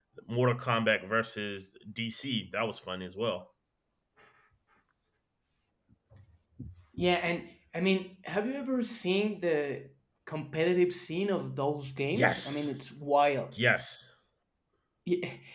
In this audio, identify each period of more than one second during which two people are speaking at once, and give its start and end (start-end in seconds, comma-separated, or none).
none